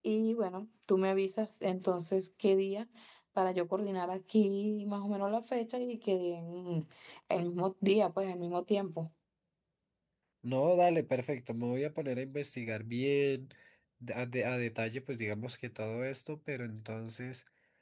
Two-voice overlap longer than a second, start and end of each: none

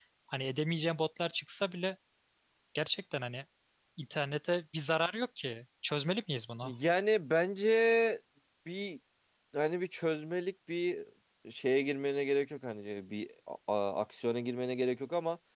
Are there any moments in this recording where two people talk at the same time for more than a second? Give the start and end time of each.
none

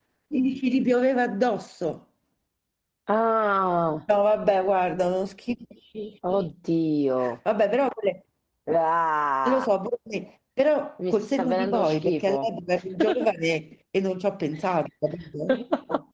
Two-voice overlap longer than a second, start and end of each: 11.1-12.5

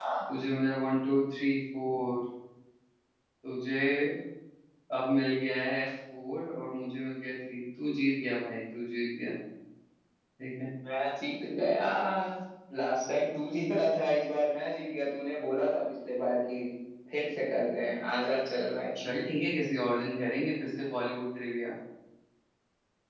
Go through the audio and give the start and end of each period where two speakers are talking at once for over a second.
none

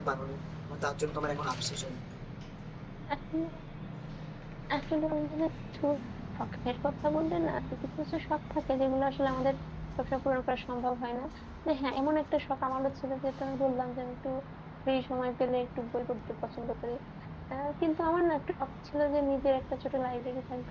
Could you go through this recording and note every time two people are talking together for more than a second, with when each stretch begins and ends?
none

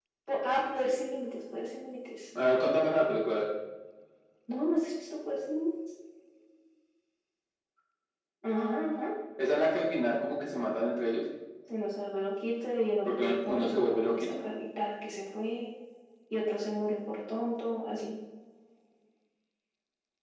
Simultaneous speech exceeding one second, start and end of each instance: 13.1-14.4

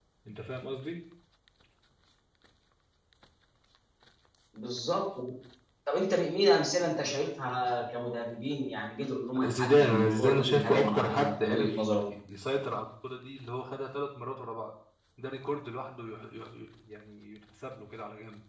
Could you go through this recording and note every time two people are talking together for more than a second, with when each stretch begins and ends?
9.4-11.8

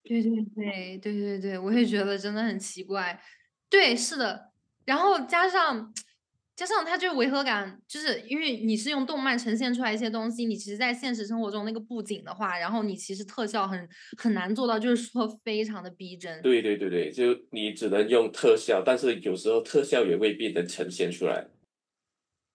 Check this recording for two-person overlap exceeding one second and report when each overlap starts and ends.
none

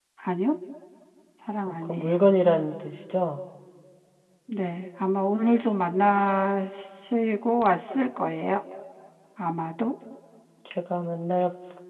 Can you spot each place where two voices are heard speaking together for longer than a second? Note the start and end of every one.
none

